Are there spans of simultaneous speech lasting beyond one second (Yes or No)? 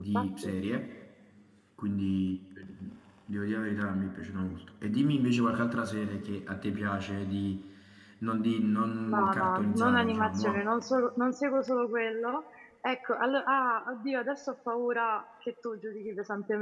Yes